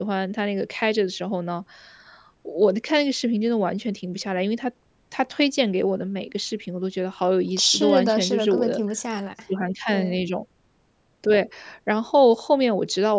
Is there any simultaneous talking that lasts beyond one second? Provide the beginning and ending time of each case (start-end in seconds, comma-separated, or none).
7.6-8.8